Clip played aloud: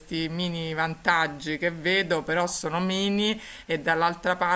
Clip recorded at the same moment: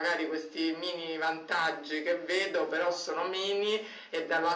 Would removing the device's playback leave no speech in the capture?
Yes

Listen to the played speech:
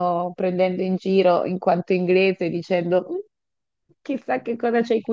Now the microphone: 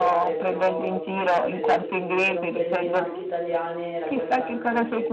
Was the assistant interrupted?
Yes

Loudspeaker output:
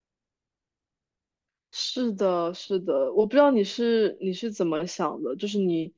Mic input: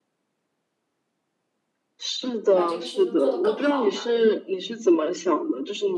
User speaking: Yes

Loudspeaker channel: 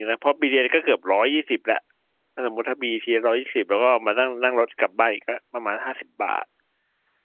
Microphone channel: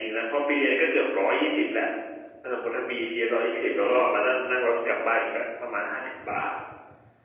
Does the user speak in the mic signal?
No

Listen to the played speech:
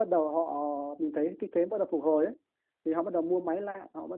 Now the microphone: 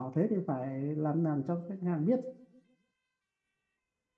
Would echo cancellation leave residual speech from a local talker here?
Yes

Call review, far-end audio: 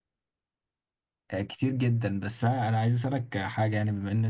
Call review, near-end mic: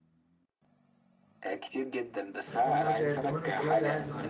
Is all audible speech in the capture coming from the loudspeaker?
No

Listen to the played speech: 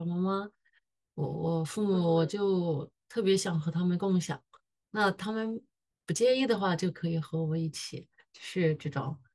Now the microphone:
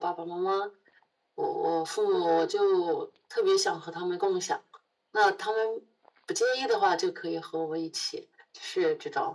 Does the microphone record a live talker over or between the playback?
No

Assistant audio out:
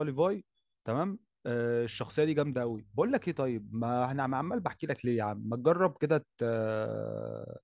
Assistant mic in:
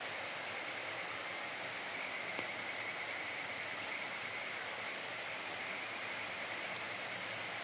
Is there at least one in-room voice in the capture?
No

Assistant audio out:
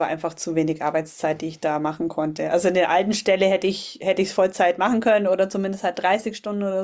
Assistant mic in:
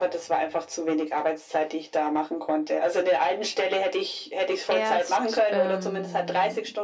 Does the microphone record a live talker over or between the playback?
Yes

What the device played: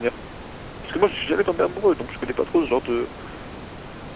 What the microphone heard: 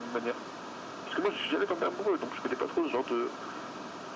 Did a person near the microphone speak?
No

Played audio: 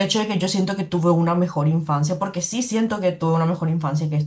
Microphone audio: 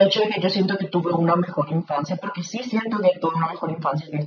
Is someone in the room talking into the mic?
No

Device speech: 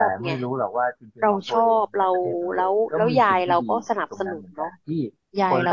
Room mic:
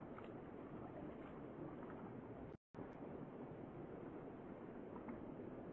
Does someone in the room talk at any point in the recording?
No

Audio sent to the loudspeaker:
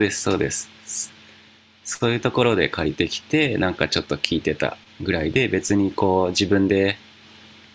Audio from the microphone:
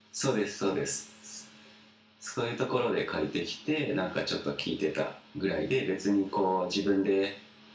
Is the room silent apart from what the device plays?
Yes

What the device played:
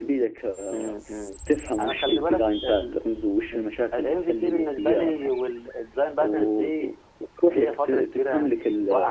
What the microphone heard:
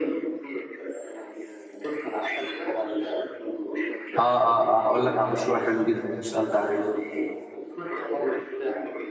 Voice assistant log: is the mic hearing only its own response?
No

